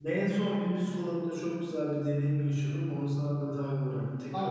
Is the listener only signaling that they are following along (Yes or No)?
No